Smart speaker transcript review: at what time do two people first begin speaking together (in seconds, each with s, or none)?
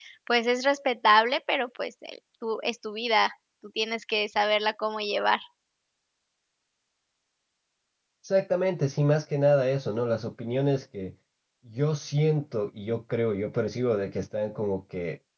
none